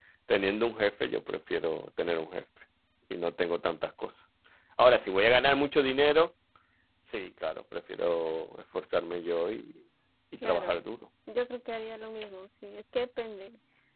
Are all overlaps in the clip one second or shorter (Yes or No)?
Yes